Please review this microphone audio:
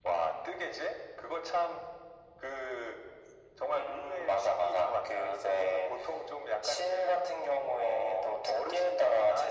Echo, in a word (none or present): present